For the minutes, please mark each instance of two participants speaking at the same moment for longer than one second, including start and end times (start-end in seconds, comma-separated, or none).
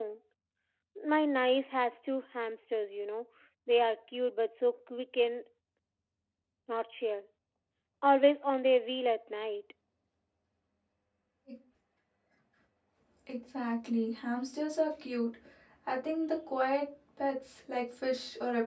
none